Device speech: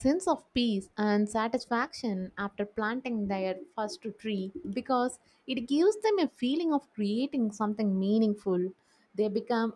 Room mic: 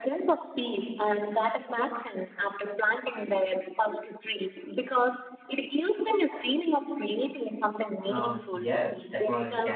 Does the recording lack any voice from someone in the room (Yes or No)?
No